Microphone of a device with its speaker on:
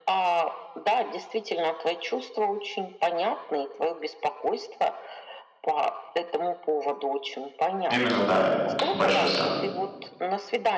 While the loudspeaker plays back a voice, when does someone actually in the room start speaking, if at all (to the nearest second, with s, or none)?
8 s